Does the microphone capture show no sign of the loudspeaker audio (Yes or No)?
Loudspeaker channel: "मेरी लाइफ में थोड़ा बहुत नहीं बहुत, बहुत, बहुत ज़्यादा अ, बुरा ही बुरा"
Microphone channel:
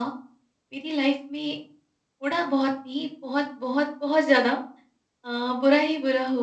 No